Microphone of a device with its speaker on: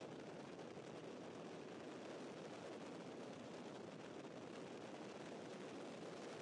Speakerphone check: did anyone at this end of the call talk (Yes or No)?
No